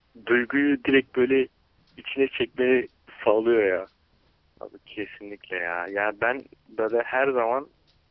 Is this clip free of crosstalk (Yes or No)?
Yes